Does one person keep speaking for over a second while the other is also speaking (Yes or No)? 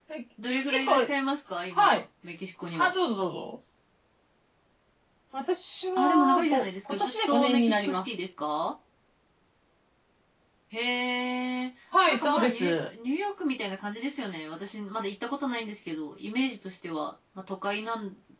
Yes